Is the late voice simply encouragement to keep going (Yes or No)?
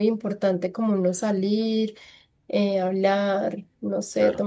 No